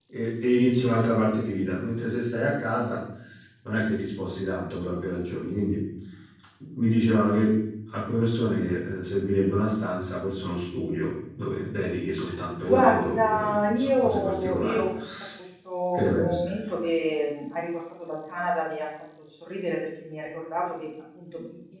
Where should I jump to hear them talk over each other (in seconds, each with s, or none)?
12.6 s